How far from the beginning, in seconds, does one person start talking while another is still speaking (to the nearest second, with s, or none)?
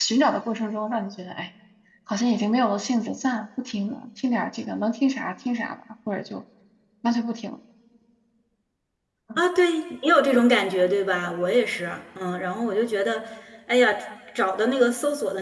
none